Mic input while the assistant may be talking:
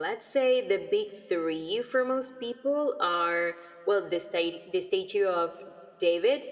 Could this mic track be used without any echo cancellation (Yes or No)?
Yes